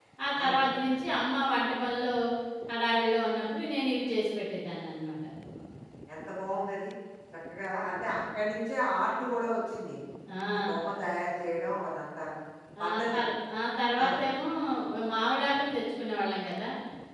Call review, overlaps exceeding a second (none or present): none